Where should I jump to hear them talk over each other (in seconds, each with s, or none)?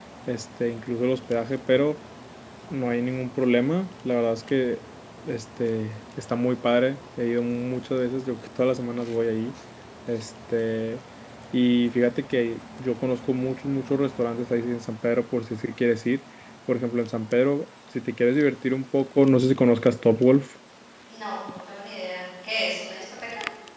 none